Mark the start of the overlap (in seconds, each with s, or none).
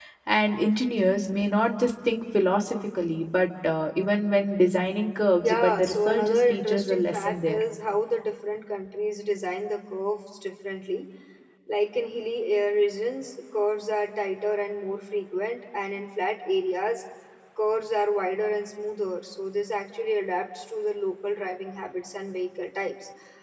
5.4 s